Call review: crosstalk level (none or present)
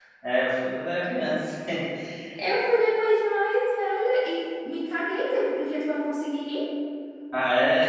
none